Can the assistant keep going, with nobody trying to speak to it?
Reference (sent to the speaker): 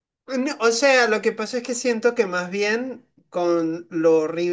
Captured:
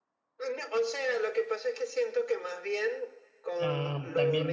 No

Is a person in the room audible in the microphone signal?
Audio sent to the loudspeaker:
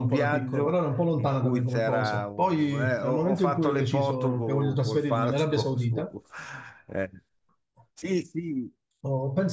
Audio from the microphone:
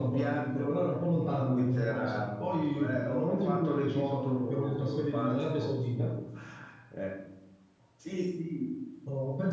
No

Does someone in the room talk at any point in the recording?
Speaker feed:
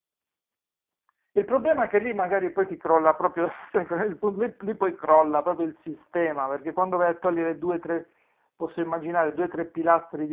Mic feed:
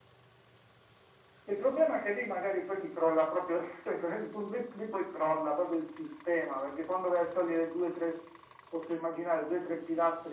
No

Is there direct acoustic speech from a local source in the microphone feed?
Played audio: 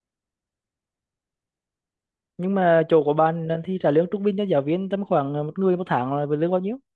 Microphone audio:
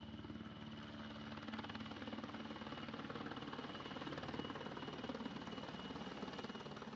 No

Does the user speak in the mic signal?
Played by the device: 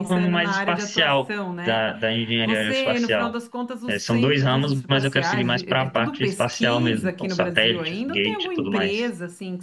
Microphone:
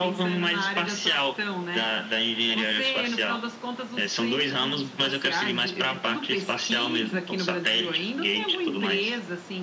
No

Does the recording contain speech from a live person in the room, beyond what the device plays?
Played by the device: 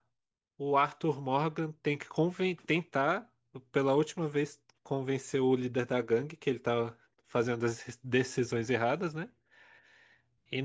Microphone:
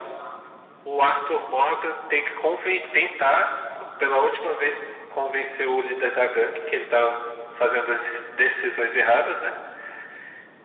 No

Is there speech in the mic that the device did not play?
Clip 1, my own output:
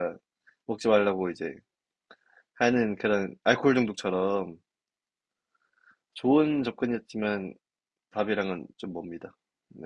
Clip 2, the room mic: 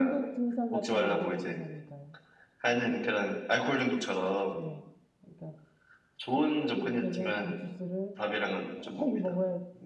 Yes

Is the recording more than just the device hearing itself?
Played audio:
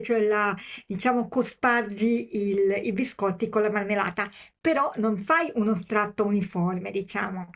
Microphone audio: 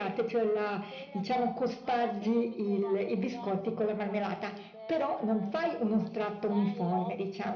Yes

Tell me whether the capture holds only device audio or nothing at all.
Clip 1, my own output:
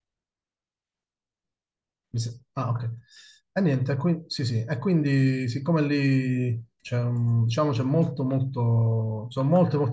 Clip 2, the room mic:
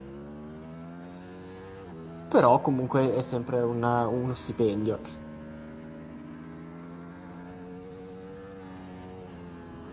No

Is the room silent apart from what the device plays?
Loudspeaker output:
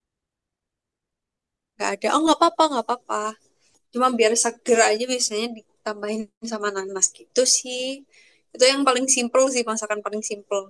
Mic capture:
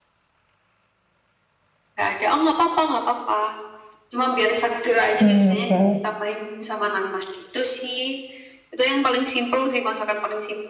No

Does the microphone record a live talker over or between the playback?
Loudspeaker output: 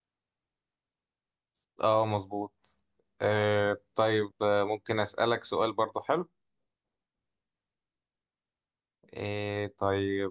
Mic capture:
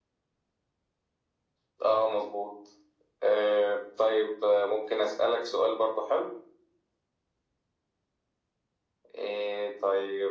No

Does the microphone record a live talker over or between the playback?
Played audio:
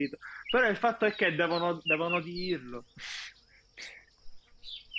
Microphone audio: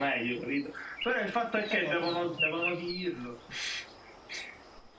Yes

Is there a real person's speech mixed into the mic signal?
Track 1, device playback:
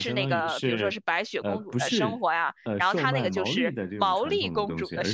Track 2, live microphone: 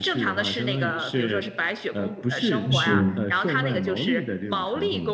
Yes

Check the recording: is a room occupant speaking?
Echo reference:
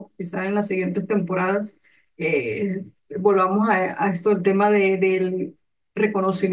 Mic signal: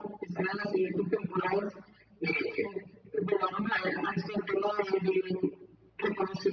No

